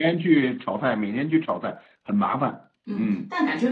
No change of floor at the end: No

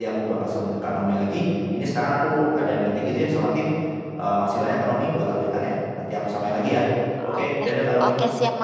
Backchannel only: No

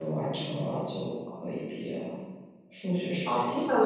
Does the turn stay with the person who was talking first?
No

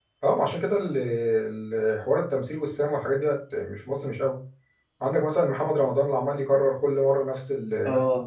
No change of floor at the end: Yes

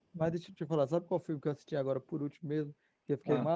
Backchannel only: Yes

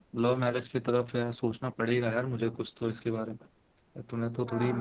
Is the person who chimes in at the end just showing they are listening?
Yes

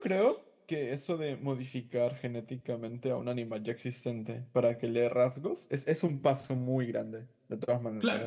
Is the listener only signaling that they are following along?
No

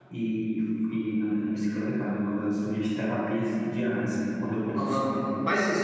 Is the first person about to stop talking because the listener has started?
Yes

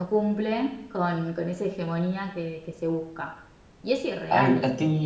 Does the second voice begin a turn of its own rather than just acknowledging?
Yes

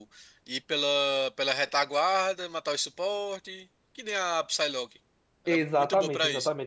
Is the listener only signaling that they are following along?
No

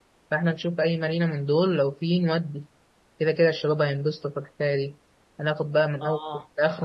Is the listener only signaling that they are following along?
Yes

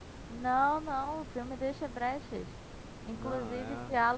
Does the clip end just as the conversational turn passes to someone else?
No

